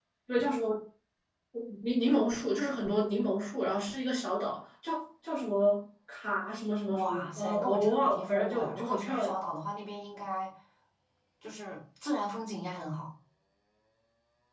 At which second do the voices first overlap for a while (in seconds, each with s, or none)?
6.9 s